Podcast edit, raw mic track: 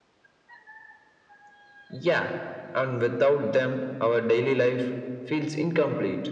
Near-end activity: none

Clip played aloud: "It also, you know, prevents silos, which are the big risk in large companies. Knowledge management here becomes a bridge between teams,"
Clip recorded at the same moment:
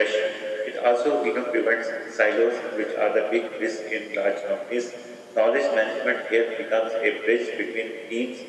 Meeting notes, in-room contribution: none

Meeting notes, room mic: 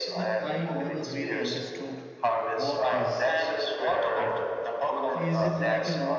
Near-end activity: present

